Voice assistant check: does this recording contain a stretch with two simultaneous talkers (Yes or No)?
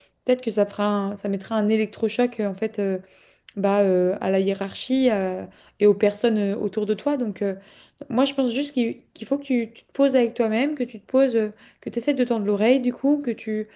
No